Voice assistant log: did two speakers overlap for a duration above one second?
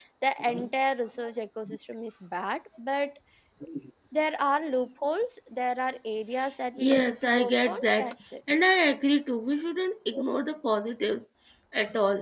Yes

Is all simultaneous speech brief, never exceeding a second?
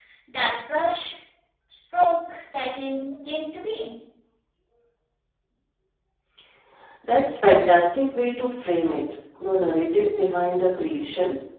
Yes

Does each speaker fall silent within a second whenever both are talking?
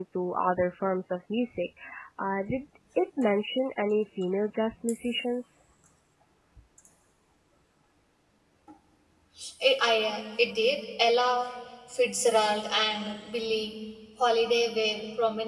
Yes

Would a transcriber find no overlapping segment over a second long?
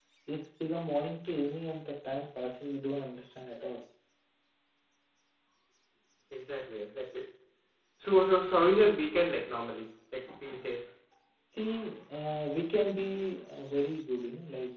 Yes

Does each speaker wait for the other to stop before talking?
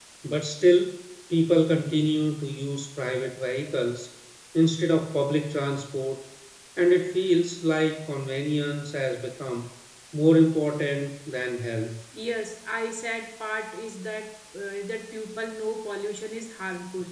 Yes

